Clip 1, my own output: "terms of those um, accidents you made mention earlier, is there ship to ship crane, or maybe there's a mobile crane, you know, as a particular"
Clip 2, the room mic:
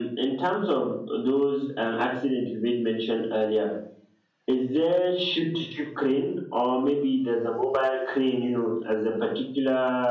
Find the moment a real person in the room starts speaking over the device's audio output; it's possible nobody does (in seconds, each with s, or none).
none